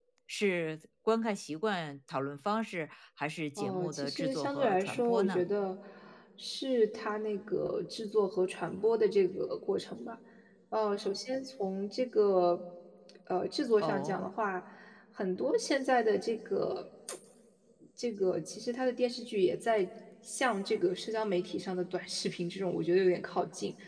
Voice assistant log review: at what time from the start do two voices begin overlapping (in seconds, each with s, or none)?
3.6 s